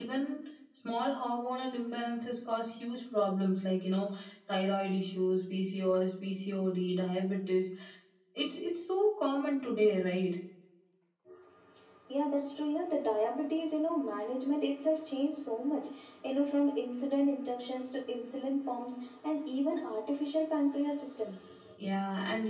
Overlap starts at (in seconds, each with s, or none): none